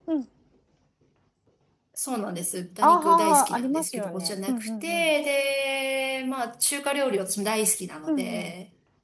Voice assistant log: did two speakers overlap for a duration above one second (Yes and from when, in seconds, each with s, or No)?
Yes, from 2.8 s